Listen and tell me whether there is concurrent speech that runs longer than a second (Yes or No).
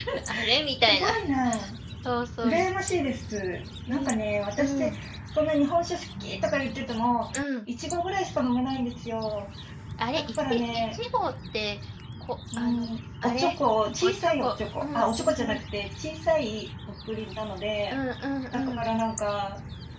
Yes